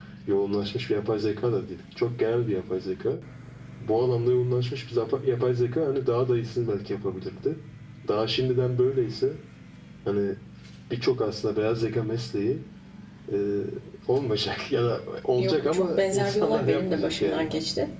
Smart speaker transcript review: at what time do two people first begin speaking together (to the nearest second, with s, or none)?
15 s